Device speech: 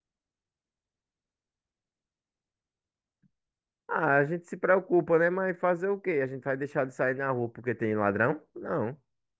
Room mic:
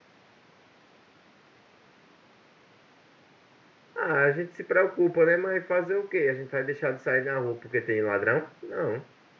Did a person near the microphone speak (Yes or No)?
No